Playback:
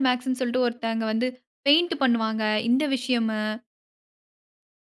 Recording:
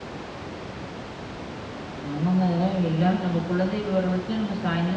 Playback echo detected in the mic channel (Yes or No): No